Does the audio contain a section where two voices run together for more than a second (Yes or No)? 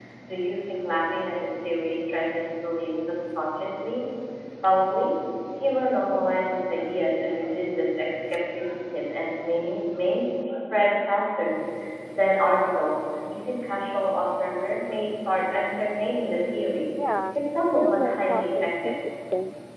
Yes